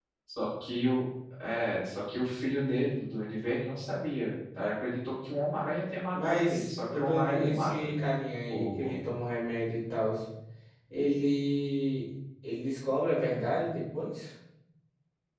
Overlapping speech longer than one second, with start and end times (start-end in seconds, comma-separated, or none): 6.1-7.9